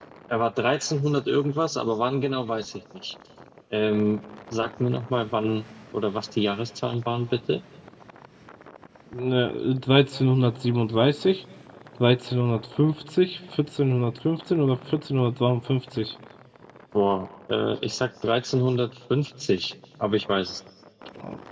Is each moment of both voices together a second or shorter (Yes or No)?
Yes